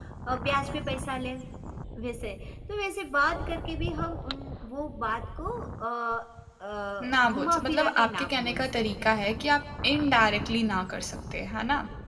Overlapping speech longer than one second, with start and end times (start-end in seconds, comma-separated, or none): 7.0-9.2